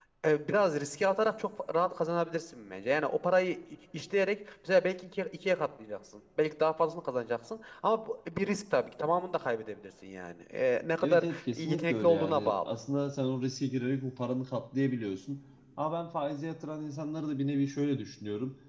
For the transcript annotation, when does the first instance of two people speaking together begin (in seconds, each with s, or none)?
11.0 s